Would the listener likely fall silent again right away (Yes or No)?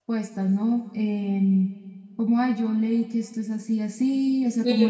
No